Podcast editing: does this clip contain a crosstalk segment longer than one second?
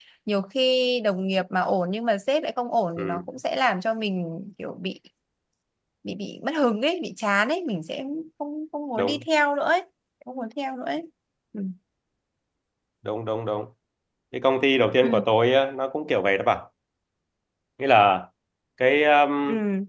No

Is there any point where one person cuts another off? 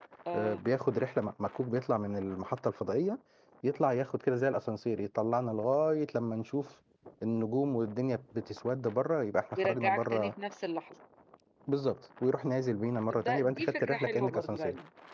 Yes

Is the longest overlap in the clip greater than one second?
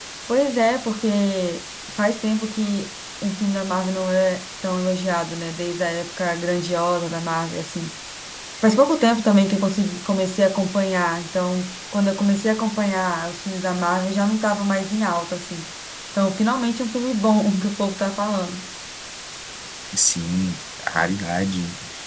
No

